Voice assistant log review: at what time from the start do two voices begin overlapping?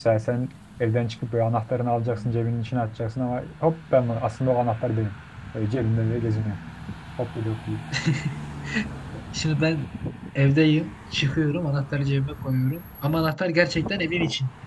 none

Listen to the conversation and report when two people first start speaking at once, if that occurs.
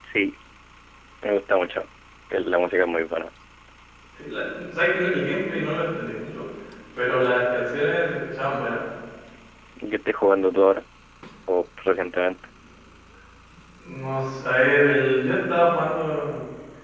none

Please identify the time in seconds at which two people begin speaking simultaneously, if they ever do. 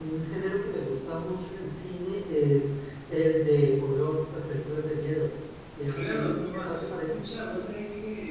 6 s

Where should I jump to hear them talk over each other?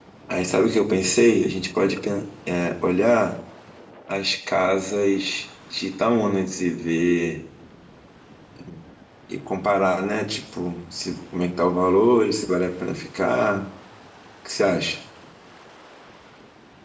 none

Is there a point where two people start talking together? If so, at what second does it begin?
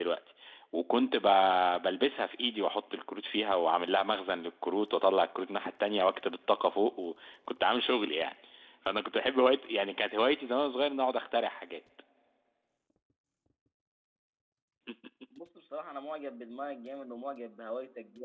none

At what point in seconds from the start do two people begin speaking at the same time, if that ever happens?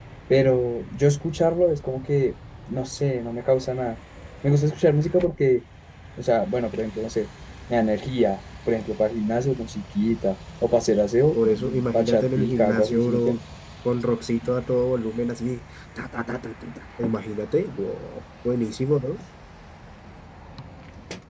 11 s

